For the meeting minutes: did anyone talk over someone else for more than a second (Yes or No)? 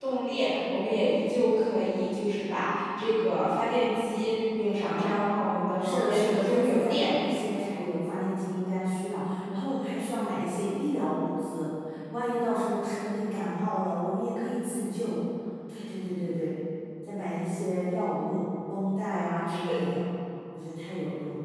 Yes